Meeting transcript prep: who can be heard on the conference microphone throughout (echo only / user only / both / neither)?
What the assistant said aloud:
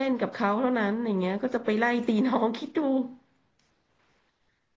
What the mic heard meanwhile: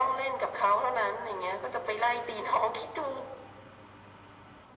echo only